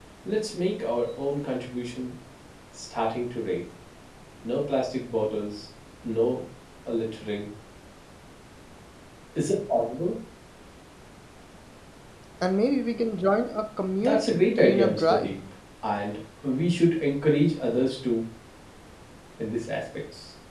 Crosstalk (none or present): present